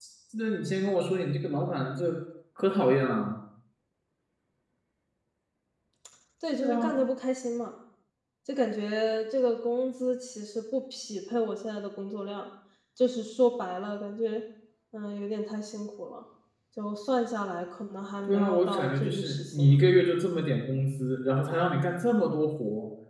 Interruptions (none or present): present